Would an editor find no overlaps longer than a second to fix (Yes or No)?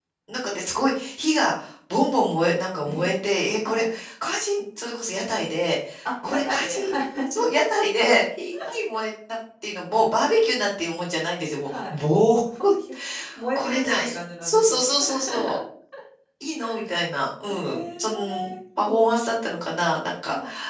No